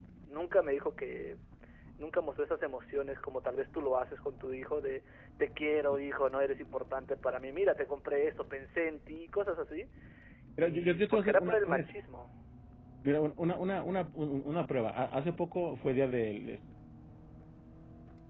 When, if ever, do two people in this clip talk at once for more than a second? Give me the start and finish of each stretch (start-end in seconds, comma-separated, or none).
10.6-11.8